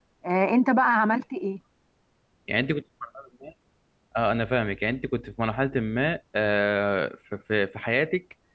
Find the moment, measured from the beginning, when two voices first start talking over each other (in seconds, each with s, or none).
none